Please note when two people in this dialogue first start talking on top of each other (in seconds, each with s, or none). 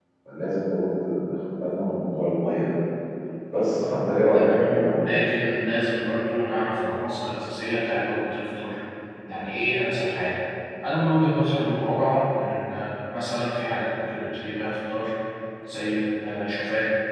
3.8 s